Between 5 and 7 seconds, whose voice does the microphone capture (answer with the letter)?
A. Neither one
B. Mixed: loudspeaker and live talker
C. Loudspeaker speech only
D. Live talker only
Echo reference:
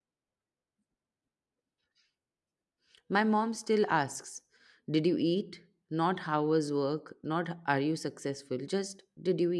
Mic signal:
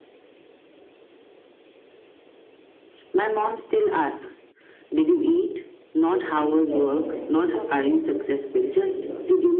B